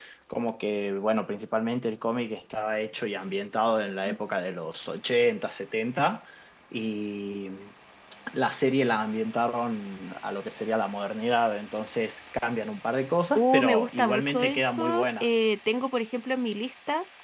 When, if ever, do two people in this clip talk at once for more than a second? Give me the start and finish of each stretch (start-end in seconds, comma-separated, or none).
13.3-15.3